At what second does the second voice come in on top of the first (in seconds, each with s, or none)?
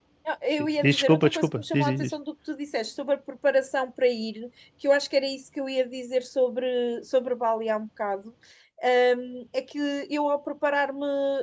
0.8 s